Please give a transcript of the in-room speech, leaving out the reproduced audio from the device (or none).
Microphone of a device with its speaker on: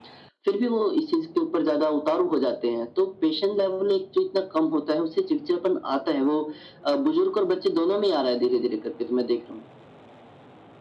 none